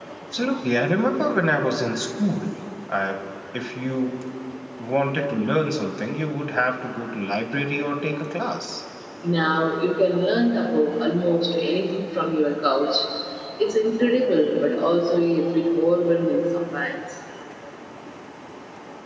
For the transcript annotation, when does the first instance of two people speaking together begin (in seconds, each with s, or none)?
none